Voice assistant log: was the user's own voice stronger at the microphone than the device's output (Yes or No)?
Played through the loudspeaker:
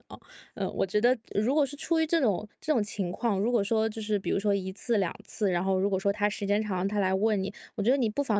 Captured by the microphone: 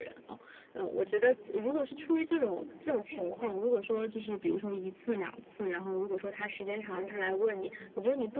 No